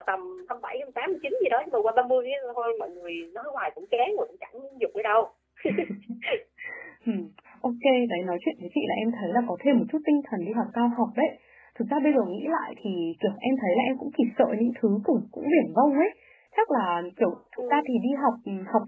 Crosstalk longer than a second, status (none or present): none